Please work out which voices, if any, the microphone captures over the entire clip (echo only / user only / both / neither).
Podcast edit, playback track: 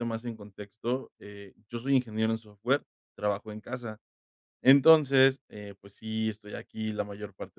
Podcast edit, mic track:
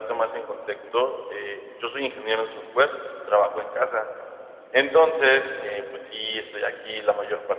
echo only